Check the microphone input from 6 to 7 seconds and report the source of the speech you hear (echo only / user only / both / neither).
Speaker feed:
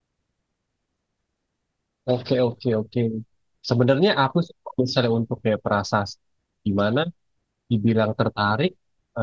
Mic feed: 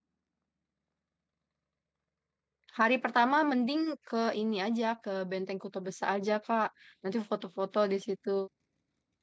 user only